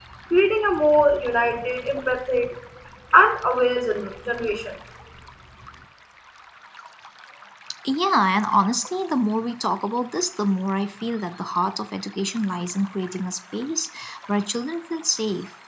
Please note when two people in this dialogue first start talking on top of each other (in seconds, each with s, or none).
none